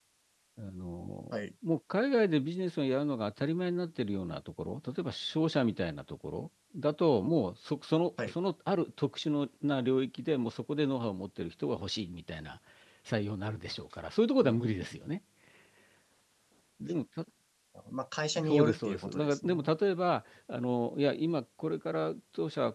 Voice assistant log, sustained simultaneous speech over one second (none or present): present